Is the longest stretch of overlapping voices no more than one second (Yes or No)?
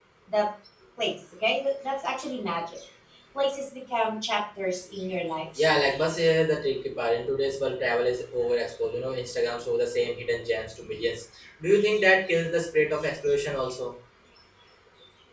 Yes